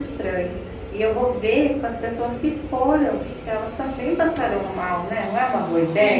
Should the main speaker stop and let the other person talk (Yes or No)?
Yes